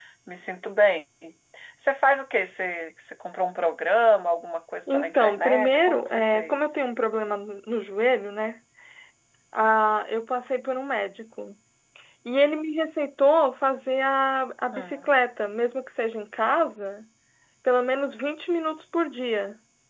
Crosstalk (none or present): present